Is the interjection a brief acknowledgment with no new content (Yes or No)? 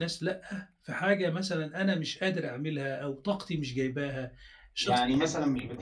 No